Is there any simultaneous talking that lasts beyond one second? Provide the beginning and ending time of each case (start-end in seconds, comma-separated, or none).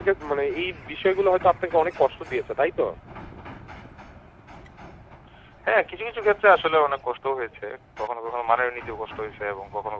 none